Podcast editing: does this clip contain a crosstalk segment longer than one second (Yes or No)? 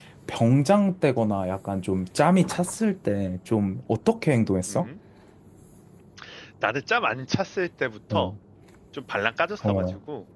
No